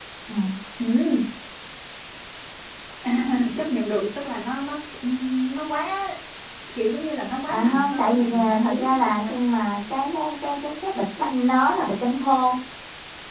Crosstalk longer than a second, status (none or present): present